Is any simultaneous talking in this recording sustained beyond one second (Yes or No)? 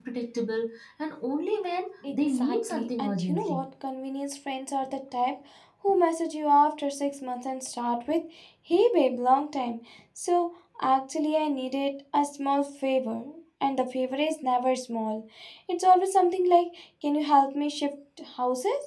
Yes